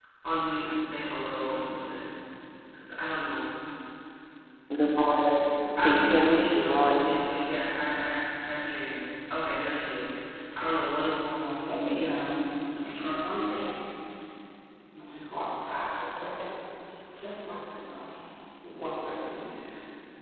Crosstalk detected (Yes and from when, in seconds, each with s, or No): Yes, from 5.8 s